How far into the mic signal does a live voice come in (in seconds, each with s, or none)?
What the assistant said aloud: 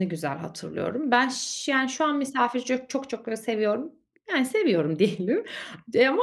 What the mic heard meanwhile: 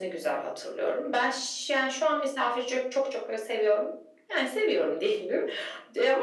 none